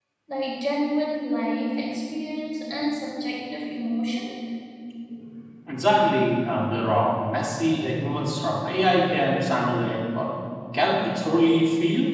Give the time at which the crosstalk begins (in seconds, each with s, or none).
none